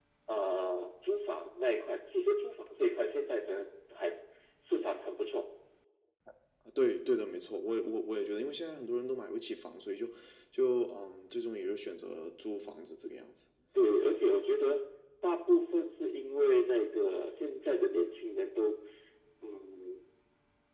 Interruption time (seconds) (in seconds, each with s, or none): none